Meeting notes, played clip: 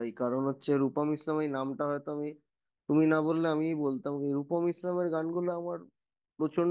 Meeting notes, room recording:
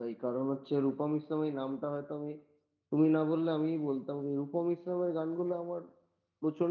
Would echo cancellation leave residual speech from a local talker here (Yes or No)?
No